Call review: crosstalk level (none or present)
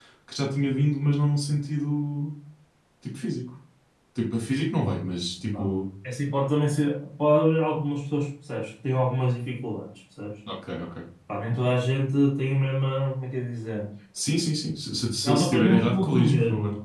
present